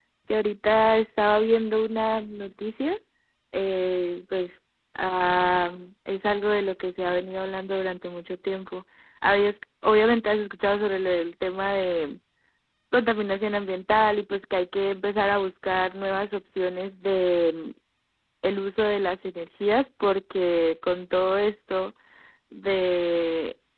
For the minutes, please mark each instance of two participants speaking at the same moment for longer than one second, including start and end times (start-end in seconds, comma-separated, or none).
none